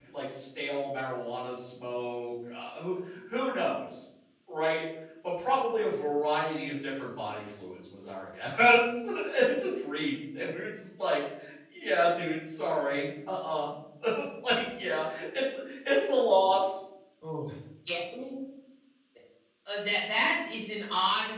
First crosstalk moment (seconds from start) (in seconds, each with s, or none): none